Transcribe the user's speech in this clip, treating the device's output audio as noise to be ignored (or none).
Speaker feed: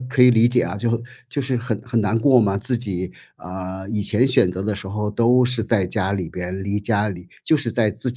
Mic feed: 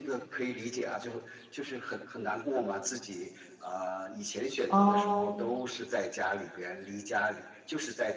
呃，